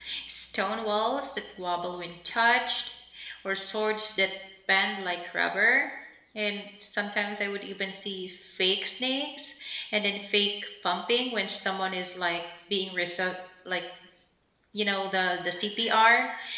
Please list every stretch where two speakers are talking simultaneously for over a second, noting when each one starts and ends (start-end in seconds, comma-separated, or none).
none